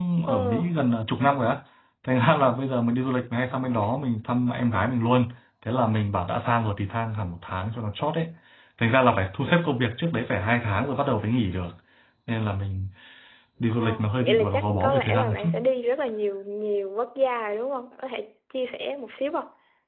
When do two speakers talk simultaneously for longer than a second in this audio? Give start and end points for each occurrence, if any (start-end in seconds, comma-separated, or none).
13.7-15.5